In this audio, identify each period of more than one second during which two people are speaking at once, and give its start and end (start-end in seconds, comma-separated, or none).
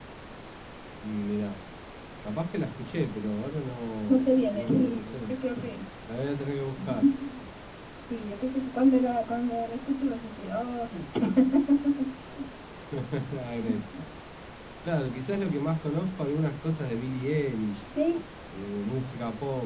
4.1-5.3